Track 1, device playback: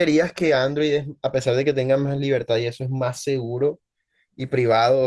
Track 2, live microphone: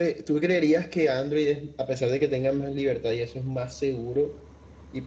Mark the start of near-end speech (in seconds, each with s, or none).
none